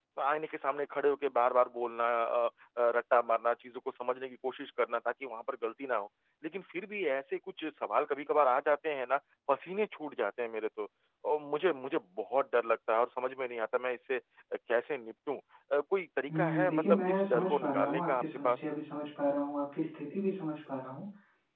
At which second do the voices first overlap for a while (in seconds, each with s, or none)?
16.3 s